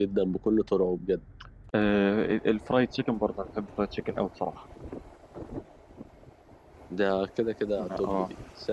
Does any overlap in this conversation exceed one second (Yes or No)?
No